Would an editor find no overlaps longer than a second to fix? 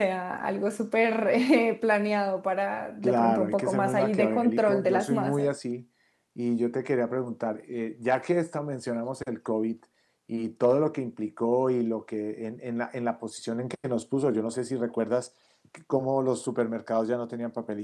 No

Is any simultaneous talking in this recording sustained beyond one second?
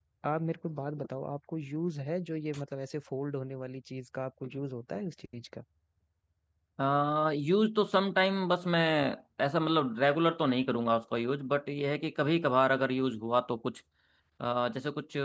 No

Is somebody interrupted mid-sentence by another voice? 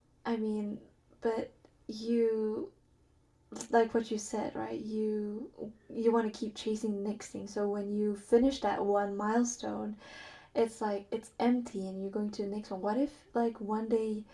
No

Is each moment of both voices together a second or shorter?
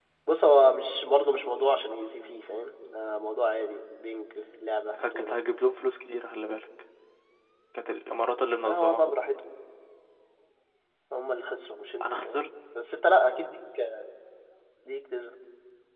Yes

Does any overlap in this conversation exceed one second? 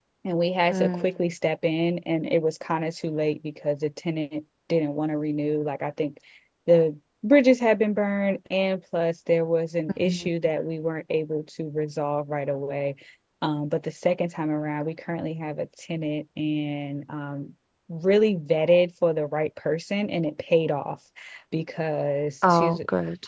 No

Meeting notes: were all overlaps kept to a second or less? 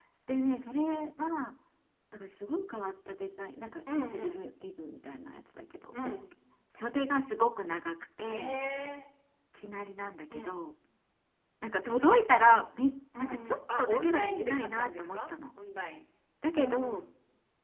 No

